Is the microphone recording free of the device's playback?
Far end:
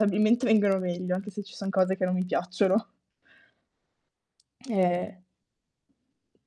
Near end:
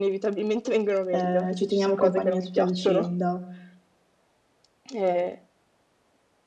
No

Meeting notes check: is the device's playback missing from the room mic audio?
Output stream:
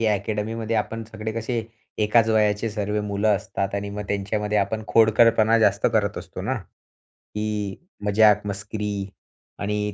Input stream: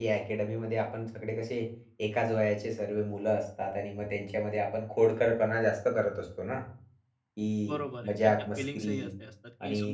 No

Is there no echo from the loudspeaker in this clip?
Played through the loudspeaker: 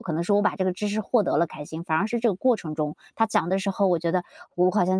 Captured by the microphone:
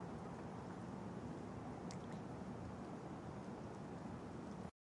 Yes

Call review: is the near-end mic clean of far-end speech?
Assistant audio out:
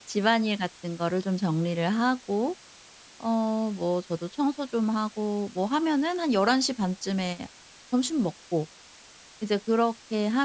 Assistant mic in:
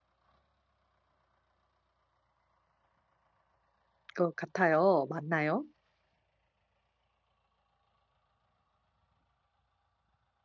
Yes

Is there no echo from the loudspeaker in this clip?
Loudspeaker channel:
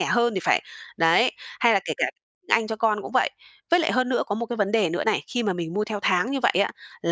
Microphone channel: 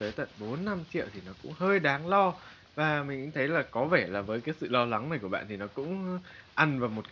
Yes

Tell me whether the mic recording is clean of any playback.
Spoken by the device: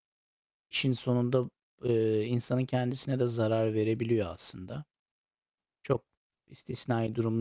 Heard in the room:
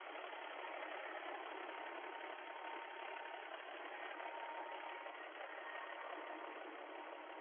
Yes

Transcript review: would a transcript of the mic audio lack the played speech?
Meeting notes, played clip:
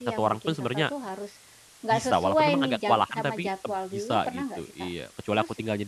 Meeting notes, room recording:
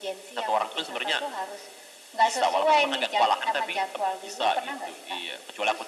No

